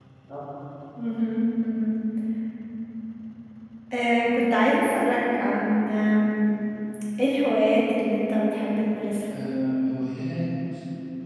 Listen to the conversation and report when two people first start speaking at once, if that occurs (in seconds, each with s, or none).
none